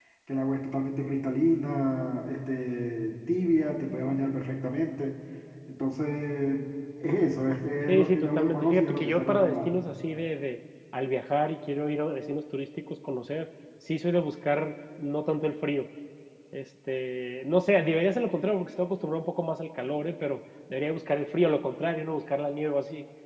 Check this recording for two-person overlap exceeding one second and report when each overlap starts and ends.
7.9-9.7

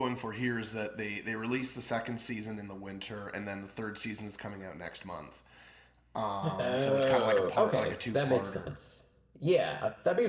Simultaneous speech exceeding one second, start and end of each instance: 6.6-8.7

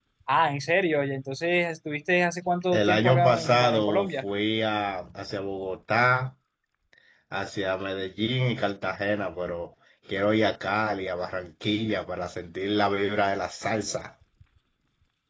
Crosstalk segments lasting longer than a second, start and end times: 2.7-4.2

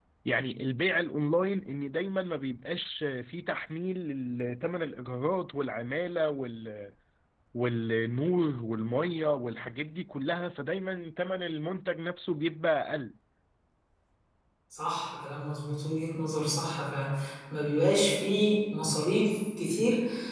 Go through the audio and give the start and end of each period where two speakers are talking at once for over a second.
none

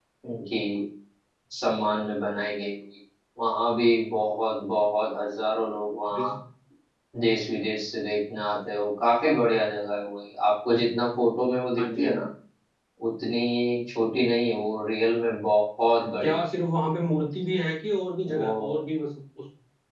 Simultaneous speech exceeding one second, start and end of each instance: none

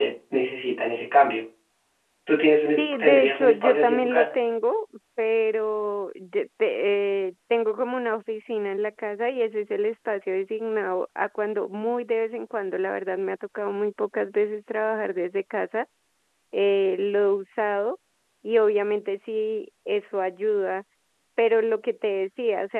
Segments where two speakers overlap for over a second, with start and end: 2.8-4.3

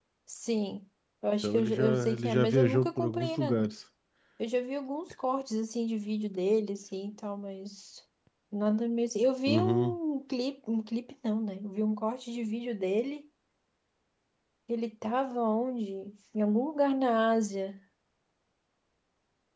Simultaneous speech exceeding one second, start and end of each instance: 1.4-3.6

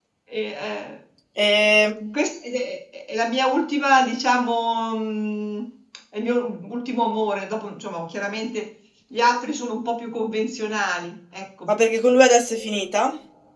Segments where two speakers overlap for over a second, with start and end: none

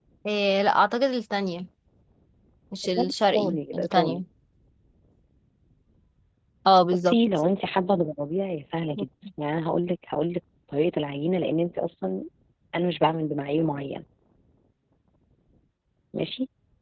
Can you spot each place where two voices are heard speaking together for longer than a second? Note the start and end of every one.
3.0-4.2

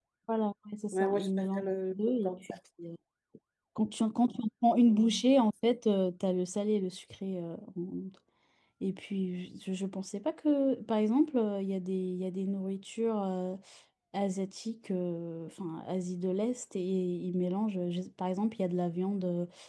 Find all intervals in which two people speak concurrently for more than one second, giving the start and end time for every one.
0.9-2.6

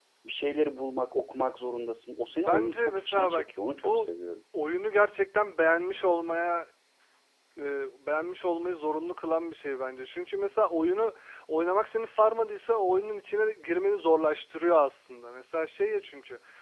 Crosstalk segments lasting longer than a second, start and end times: 2.2-4.1

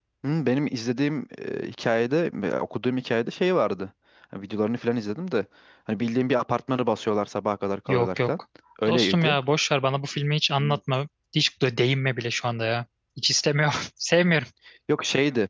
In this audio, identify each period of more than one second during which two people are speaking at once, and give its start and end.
none

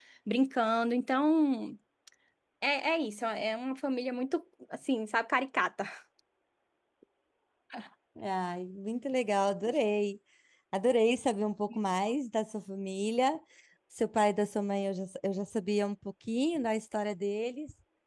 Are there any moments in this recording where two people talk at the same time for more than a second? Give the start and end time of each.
none

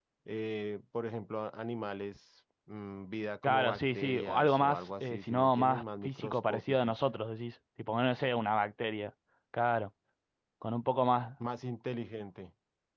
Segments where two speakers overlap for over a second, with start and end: 3.4-7.0

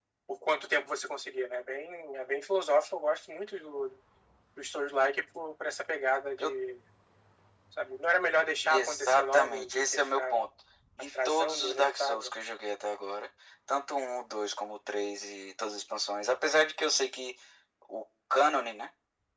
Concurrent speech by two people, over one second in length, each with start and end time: 8.6-10.5, 11.0-12.3

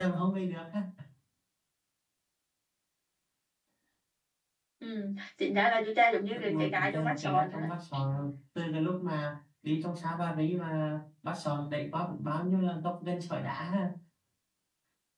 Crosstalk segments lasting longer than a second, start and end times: 6.3-7.7

